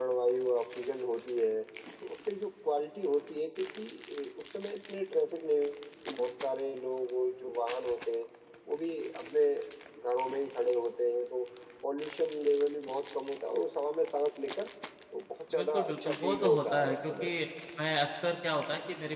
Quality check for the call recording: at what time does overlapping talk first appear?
15.5 s

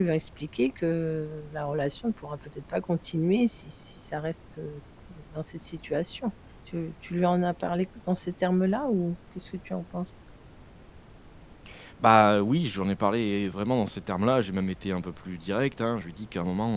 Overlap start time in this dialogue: none

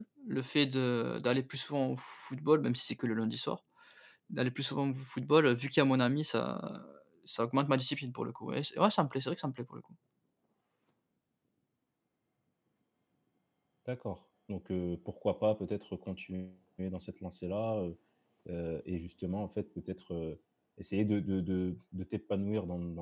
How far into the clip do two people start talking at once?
none

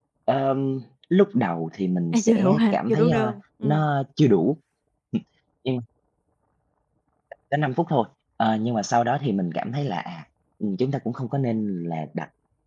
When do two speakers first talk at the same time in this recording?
2.1 s

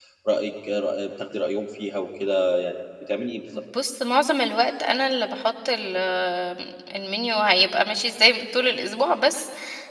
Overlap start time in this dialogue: none

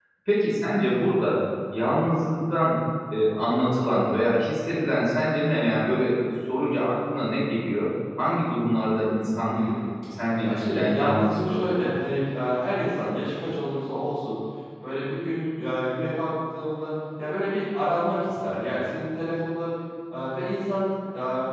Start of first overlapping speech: 10.4 s

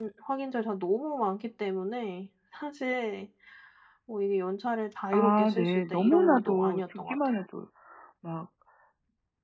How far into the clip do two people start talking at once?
5.1 s

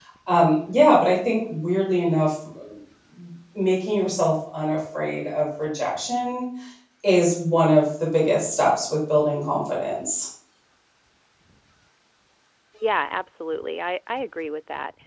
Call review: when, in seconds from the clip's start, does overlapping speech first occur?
none

